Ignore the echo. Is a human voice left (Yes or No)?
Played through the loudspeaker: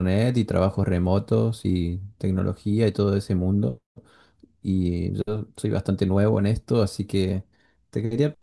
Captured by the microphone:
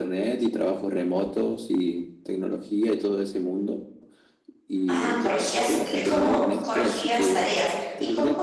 Yes